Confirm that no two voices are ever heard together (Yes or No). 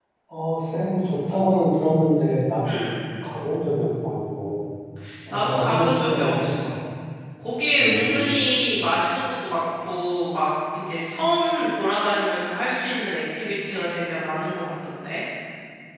No